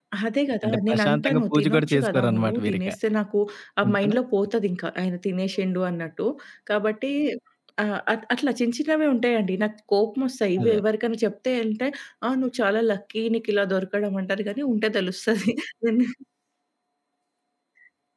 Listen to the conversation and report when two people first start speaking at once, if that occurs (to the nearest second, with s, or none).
1 s